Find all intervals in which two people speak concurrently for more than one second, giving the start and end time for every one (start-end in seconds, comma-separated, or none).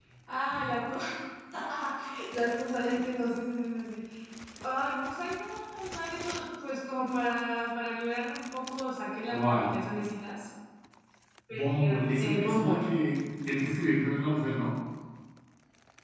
11.5-12.9